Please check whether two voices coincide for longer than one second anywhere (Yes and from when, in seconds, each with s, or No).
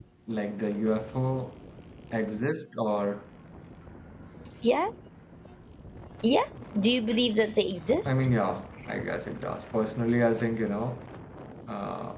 No